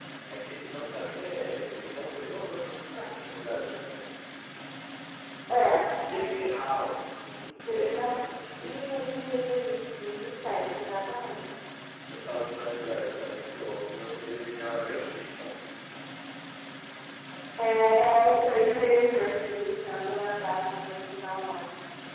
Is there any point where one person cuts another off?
Yes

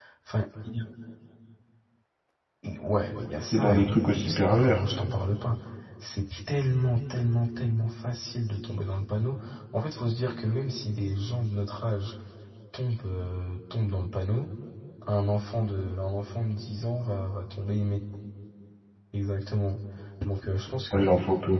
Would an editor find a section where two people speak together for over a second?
Yes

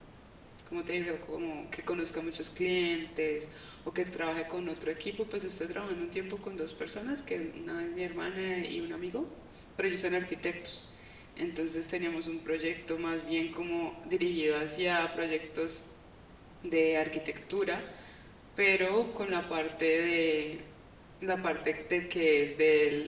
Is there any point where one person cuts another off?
No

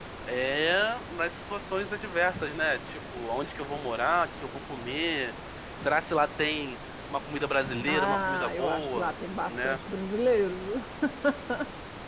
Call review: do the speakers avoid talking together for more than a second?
No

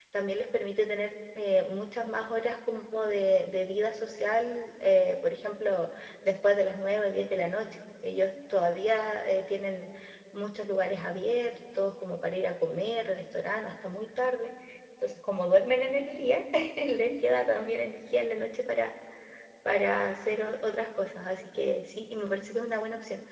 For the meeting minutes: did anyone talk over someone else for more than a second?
No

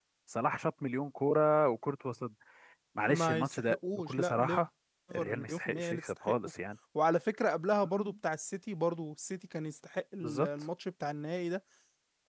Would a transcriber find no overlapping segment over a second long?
No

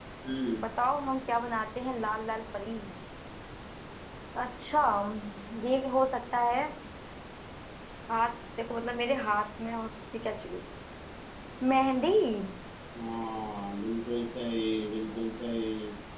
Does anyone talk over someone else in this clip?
No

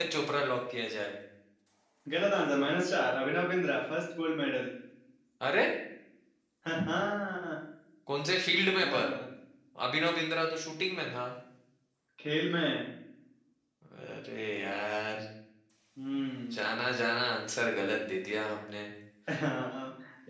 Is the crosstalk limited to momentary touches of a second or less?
Yes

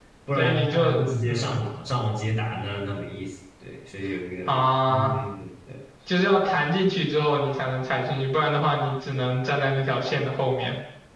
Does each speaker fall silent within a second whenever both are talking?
No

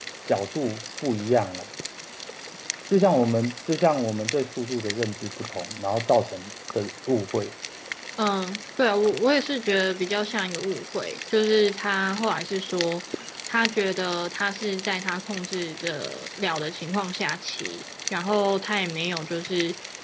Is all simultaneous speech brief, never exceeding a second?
Yes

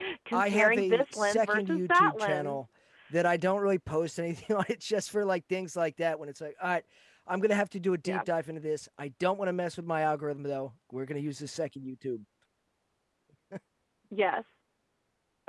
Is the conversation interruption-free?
No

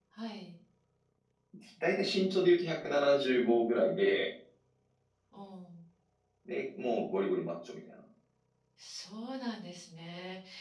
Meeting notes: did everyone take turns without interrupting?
Yes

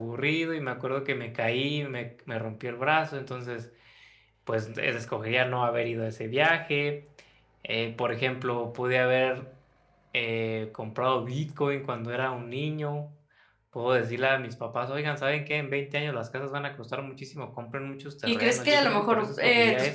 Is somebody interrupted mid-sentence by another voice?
Yes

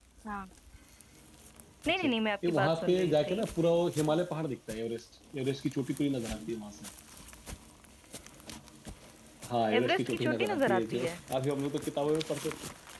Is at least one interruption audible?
Yes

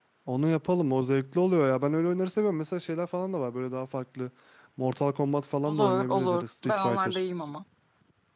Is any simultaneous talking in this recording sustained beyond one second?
Yes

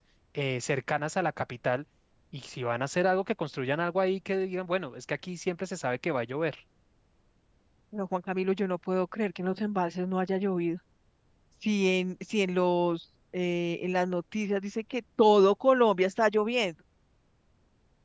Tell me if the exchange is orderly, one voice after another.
Yes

